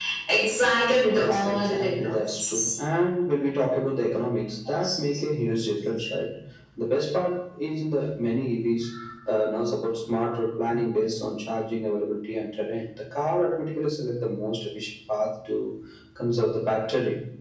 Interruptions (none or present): present